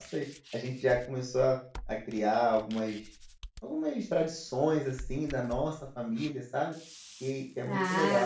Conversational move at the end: taking over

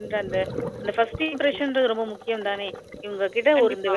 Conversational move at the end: listening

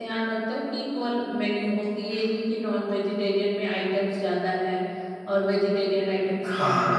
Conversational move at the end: taking over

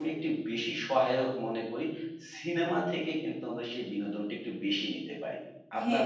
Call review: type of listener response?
taking over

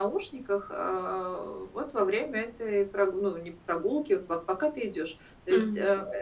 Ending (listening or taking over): listening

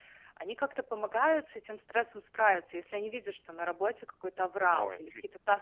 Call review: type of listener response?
listening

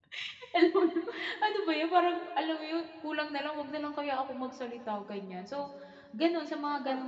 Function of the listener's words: listening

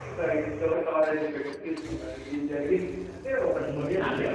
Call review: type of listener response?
taking over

